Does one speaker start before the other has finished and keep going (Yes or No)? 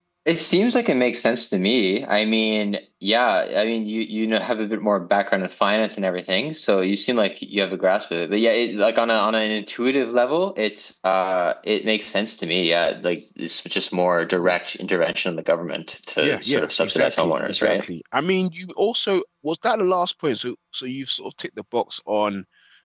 Yes